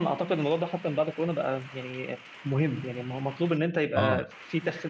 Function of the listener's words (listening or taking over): listening